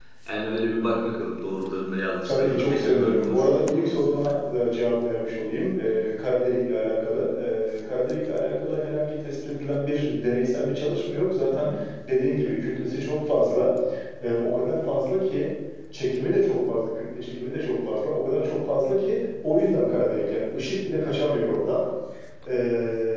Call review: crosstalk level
present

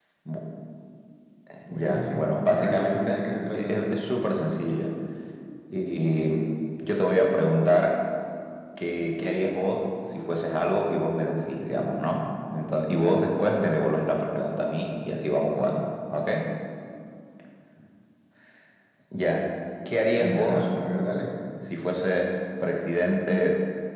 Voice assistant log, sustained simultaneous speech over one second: present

